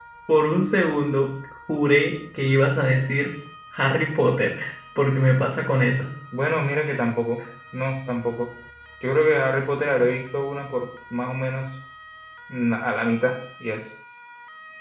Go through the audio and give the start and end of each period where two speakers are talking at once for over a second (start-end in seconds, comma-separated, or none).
none